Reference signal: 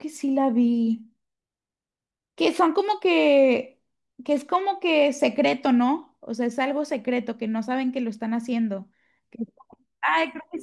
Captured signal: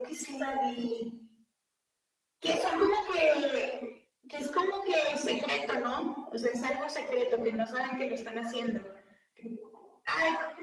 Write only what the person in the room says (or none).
none